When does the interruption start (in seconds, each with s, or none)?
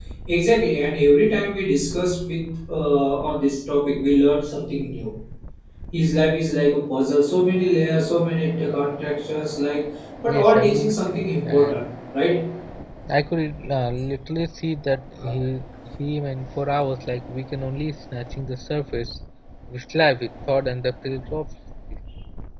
10.3 s